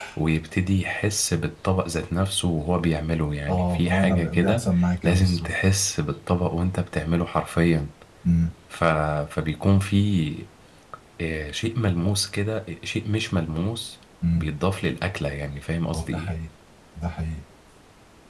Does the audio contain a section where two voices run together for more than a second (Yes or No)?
Yes